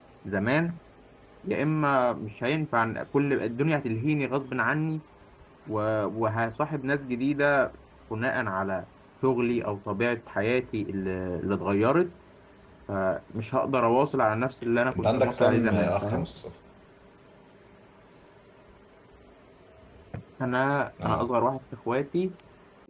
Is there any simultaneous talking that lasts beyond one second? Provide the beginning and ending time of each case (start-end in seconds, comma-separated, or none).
14.9-16.3